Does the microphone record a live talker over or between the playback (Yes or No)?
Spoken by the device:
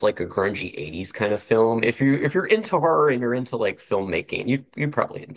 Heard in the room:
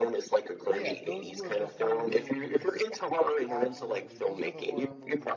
Yes